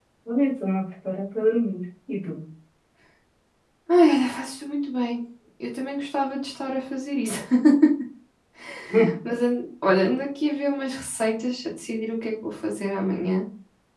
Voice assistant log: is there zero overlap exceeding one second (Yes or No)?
Yes